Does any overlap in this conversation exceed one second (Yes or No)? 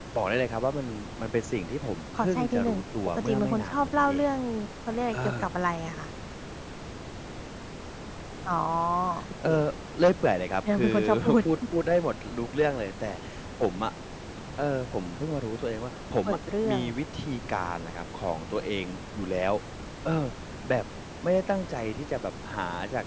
Yes